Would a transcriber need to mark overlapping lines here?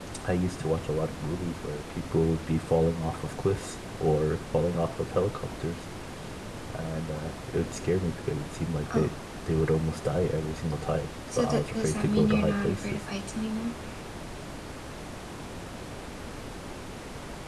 Yes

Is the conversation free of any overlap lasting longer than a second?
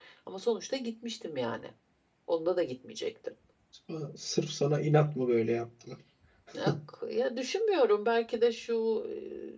Yes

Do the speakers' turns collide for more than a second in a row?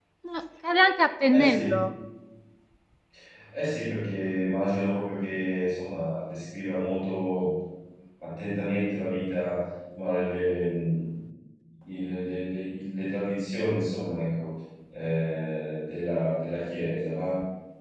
No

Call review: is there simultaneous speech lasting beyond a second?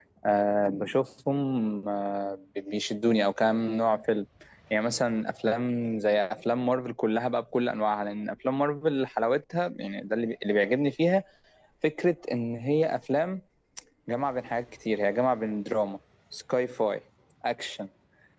No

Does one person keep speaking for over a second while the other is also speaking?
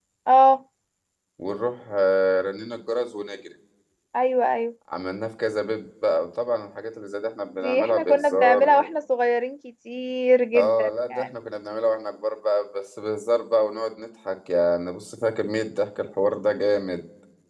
Yes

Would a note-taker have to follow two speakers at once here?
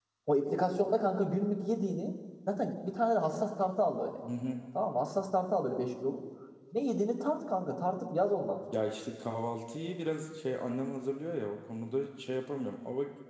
No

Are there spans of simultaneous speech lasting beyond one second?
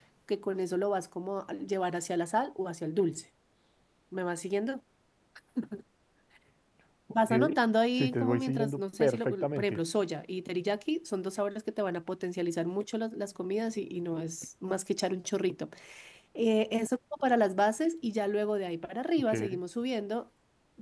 Yes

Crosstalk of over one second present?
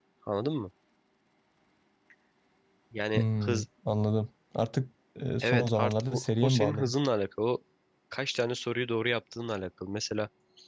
Yes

